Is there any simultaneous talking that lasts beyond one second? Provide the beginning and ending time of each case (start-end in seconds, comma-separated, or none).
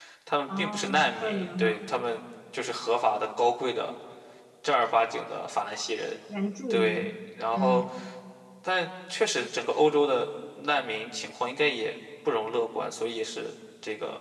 0.6-1.9